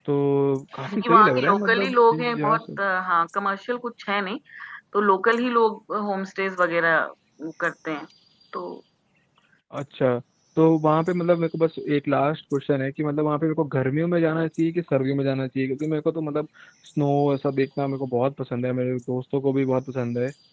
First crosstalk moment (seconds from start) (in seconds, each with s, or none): 0.8 s